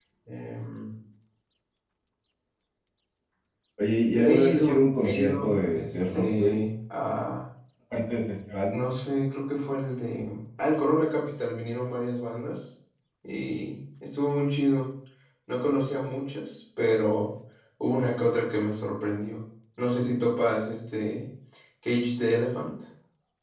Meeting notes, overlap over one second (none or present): present